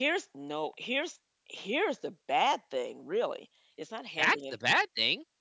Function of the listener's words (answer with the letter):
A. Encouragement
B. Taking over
B